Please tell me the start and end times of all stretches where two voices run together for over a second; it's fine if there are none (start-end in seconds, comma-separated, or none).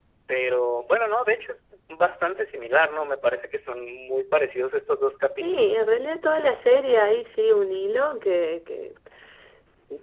none